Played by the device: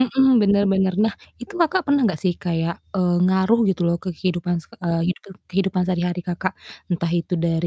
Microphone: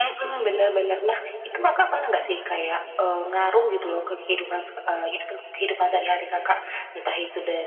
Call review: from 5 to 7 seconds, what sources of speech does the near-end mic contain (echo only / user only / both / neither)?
echo only